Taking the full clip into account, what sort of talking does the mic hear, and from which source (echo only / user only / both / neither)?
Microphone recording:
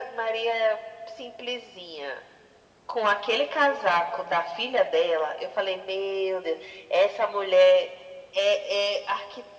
echo only